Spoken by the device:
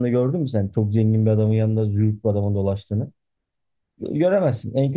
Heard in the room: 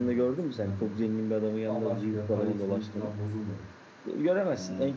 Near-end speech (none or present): present